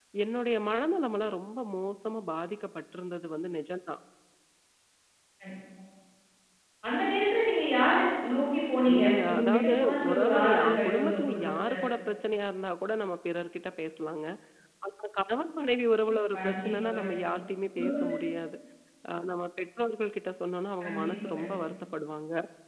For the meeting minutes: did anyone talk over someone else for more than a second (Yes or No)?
Yes